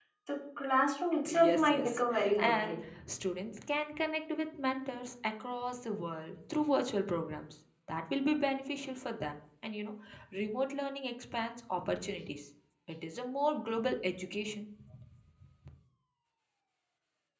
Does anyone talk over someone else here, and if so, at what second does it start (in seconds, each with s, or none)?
1.3 s